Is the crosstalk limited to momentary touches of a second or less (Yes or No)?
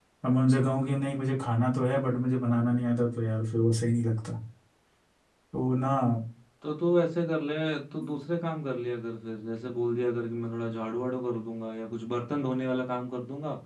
Yes